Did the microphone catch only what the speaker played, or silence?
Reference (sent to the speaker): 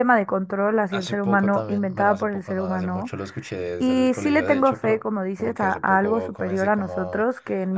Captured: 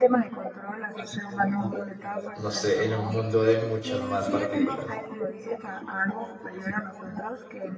No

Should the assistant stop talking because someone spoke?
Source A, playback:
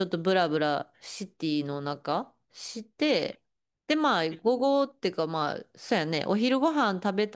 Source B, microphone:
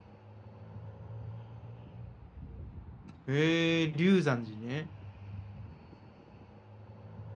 Yes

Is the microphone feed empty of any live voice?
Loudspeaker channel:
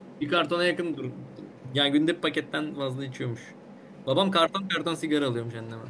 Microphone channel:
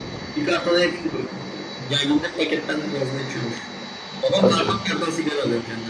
No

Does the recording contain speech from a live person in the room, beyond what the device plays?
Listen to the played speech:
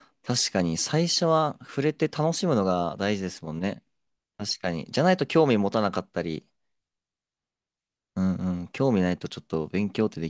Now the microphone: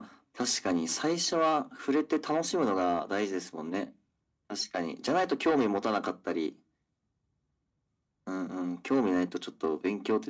No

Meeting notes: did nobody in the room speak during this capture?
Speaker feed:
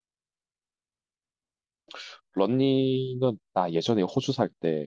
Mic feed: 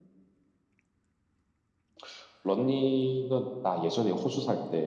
Yes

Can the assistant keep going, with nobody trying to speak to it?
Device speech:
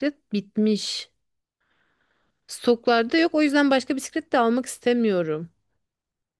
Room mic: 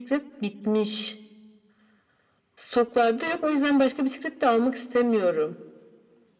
Yes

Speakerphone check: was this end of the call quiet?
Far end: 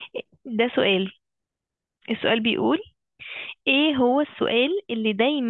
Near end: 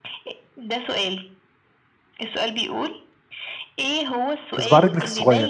No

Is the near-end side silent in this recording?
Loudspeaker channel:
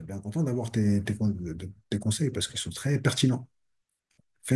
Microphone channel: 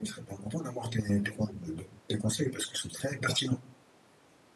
Yes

